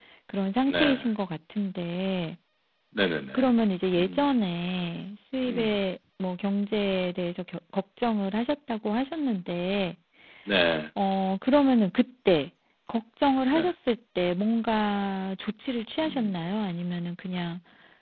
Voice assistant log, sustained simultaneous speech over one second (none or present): none